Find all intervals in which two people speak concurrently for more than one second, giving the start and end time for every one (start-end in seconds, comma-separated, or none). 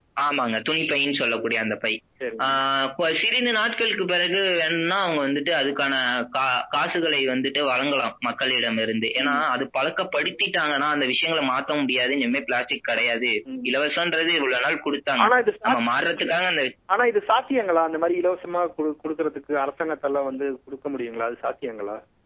none